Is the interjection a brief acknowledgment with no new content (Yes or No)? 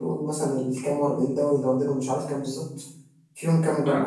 Yes